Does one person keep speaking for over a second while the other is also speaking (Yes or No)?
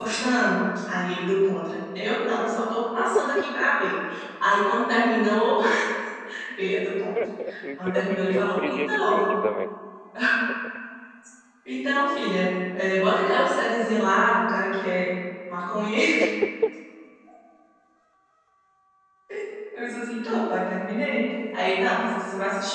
Yes